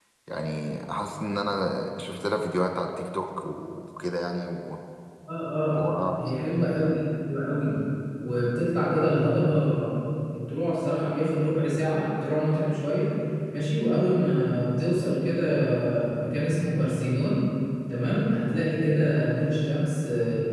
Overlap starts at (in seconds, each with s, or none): none